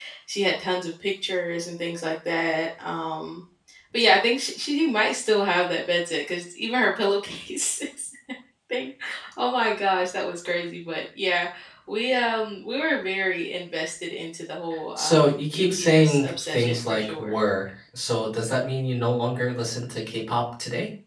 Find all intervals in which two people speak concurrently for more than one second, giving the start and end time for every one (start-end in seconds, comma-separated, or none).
15.0-17.4